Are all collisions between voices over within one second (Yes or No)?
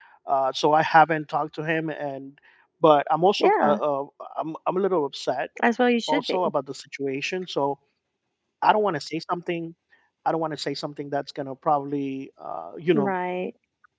Yes